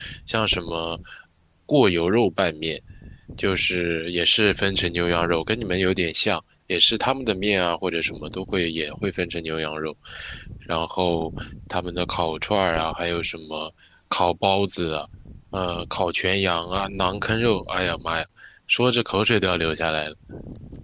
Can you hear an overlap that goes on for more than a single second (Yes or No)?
No